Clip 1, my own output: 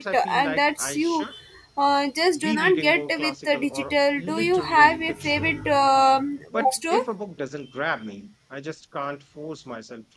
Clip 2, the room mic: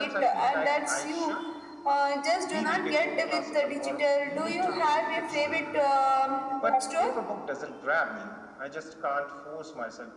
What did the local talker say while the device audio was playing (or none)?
none